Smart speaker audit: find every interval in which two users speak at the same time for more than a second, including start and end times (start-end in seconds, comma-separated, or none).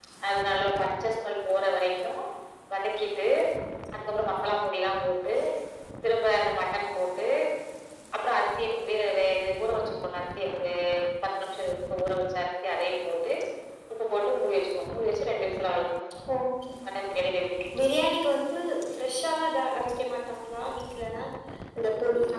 none